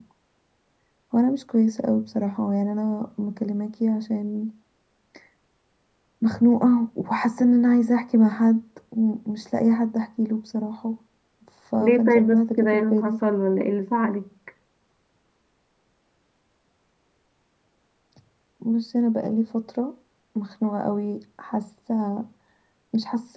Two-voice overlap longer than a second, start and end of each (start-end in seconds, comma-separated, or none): 11.8-13.1